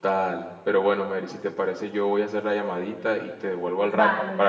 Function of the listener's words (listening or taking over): taking over